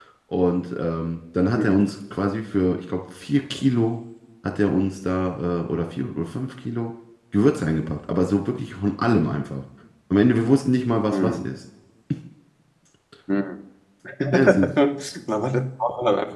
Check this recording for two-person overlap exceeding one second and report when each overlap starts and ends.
none

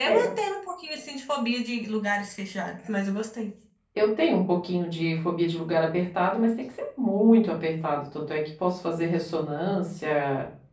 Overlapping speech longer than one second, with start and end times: none

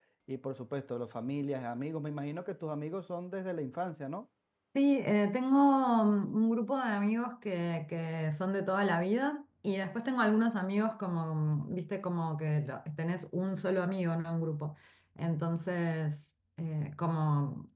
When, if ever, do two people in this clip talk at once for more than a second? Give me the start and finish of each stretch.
none

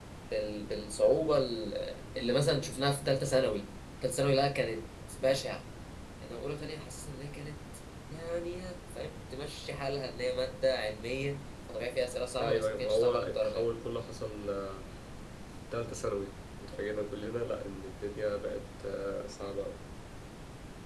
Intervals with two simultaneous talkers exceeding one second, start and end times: 12.4-13.7

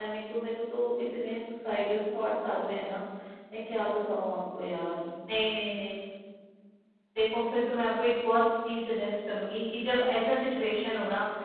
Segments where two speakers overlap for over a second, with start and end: none

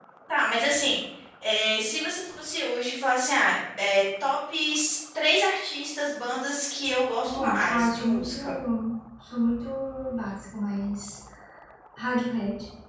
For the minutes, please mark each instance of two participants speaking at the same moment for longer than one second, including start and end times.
7.2-8.5

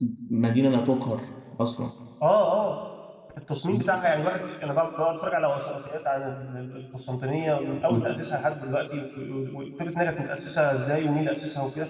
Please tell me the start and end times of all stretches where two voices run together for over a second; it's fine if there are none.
none

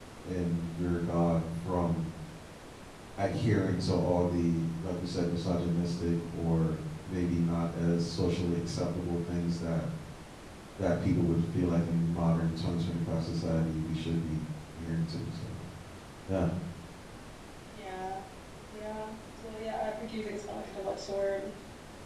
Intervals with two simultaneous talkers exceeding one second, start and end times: none

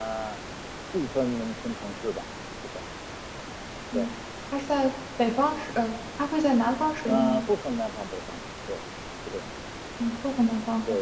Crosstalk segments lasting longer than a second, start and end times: none

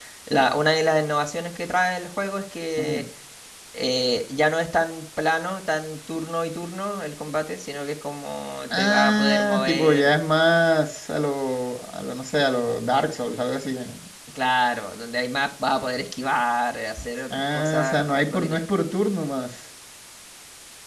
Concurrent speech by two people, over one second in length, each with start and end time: 8.7-10.1, 17.3-18.6

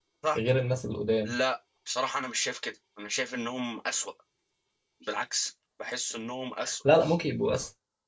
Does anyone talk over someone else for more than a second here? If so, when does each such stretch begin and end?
none

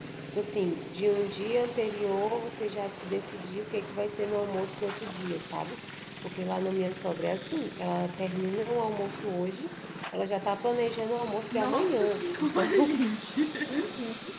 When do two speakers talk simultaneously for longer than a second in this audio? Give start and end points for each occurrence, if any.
11.5-13.0

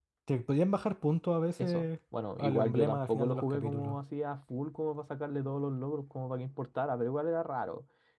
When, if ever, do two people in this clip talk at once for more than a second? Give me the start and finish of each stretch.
2.4-4.0

